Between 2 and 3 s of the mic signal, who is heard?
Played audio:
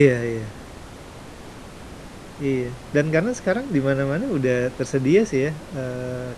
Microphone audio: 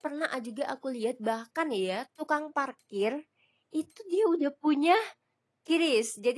user only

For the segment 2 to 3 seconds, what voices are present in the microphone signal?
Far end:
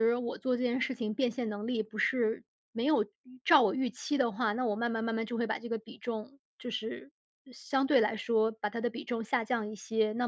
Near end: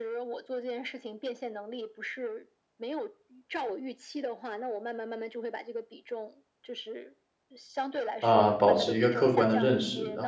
echo only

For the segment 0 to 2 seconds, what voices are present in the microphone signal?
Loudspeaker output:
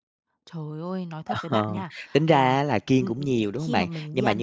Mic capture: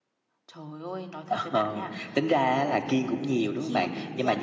echo only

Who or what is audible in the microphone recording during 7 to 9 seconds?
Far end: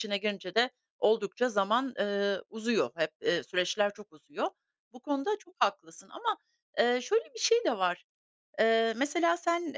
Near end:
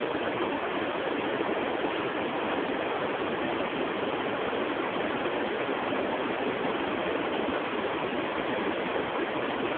neither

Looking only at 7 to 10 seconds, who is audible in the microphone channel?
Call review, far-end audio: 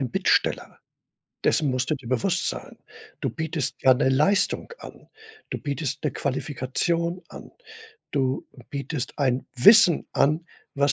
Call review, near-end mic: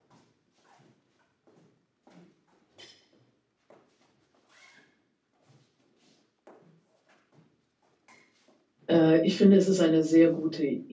user only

